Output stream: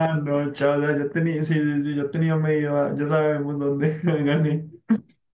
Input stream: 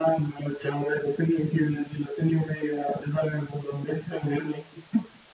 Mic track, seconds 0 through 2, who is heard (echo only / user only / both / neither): echo only